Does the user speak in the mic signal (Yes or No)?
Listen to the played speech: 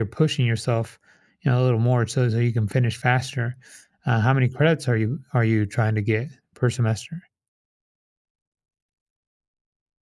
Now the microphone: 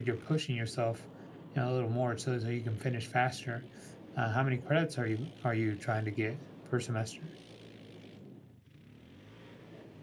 No